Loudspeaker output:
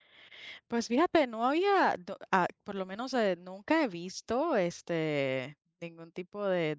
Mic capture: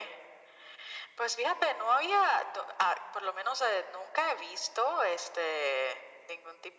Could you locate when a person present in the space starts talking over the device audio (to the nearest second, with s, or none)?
none